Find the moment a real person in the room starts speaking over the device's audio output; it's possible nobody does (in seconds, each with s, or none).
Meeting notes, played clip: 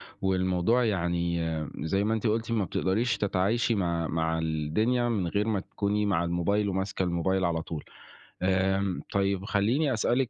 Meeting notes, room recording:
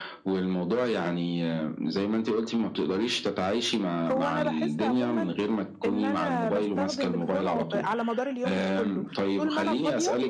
4.1 s